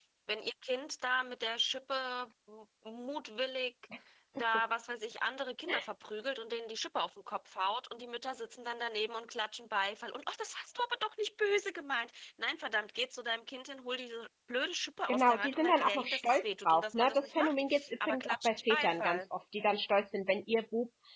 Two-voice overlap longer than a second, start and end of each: 15.1-19.3

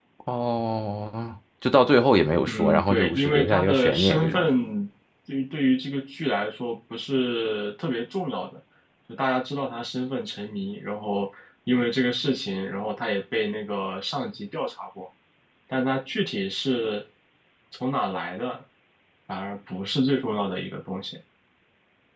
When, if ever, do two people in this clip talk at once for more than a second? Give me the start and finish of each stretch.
2.5-4.5

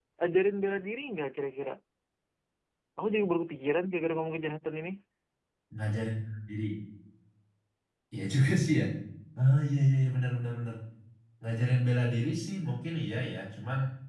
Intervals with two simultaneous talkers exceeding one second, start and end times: none

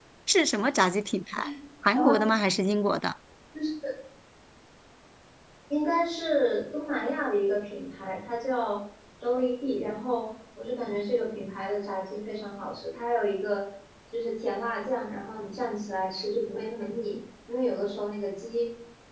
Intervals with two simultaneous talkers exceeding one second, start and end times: none

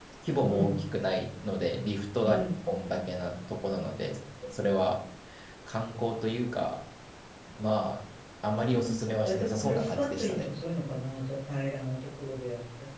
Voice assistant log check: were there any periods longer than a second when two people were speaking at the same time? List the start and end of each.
8.5-10.5

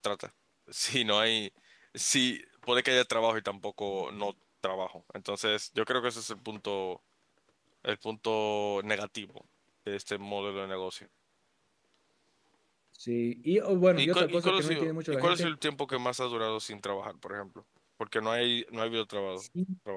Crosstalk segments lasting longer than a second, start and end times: 14.0-15.5

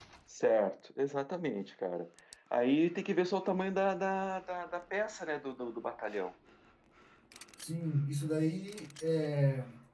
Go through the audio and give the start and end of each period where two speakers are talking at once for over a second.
none

